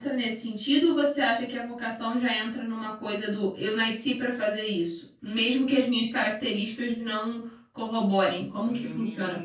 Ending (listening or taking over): taking over